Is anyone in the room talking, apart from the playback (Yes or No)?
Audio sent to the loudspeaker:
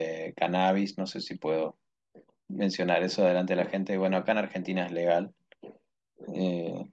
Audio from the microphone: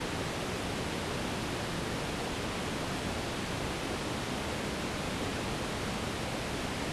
No